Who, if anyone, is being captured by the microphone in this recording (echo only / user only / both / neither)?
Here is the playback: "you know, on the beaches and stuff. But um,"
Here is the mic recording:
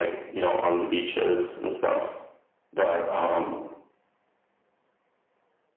echo only